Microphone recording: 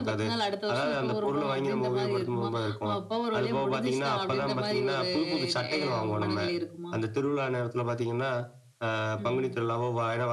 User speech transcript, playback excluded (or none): none